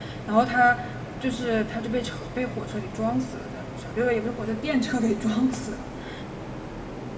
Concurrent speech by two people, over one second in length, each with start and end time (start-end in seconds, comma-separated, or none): none